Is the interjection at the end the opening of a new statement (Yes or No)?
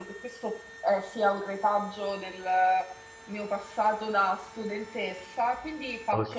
No